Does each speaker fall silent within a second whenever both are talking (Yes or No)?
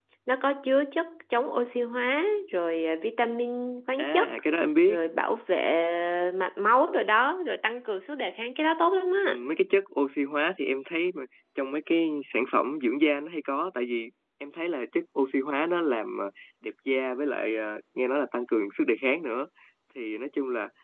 Yes